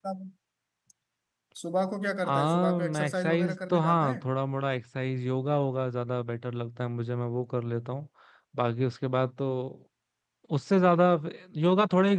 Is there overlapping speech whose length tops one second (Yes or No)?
Yes